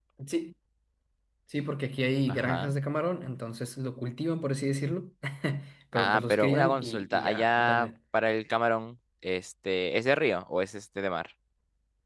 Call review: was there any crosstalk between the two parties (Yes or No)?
Yes